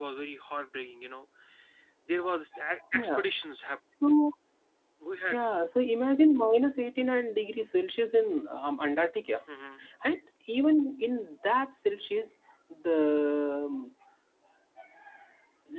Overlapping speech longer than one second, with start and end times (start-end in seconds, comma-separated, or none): none